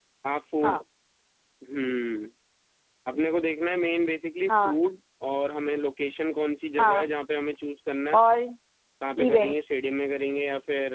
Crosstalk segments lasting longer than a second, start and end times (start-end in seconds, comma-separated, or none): none